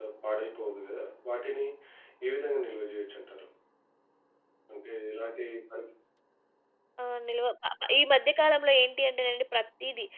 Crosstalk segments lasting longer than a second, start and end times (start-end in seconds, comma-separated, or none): none